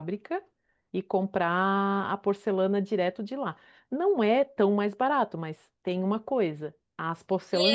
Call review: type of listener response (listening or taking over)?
taking over